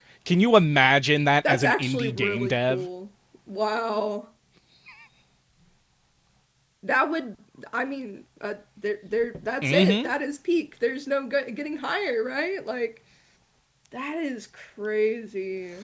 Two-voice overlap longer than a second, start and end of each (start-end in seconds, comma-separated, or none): 1.4-2.9